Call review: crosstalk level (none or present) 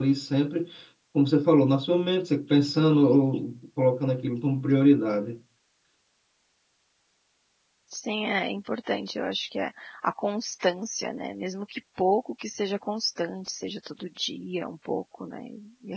none